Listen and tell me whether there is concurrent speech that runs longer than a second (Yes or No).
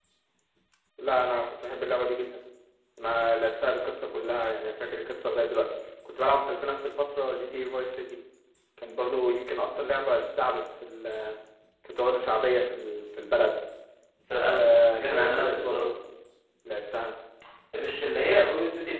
Yes